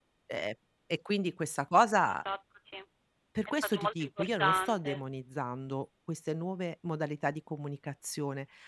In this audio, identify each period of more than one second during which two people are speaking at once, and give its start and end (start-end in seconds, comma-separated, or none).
3.5-5.0